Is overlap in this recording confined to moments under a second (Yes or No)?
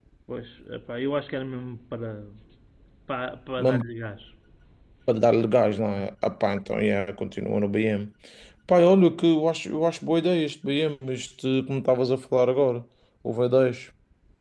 Yes